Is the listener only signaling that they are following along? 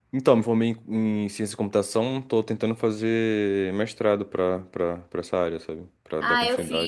No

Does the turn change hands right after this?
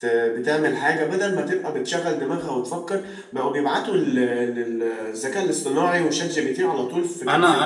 Yes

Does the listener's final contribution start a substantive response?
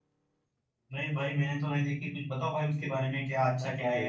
No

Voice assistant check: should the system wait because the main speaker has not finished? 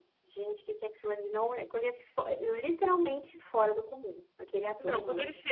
No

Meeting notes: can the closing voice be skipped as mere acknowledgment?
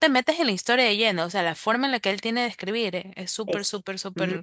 No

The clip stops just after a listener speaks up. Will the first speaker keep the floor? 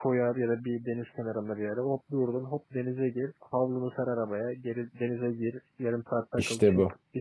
Yes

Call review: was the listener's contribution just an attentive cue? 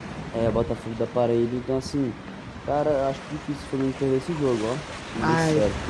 No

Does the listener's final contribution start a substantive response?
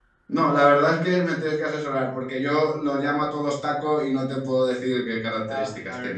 Yes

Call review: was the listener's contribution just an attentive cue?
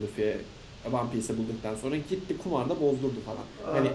No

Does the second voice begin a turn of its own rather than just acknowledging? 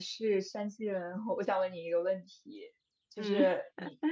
No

